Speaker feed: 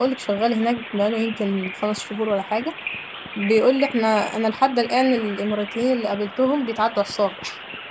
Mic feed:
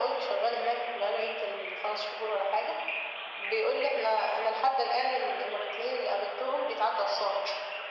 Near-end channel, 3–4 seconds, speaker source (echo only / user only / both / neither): echo only